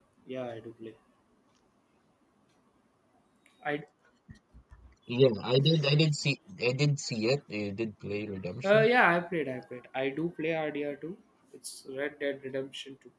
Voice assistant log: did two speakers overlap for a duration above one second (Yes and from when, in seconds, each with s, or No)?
No